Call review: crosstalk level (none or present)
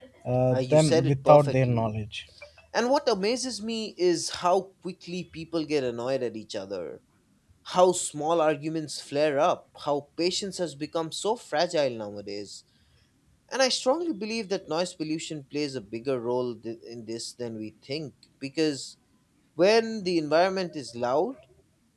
present